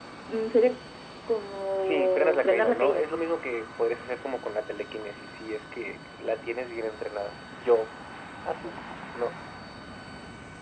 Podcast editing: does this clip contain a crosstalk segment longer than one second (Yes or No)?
Yes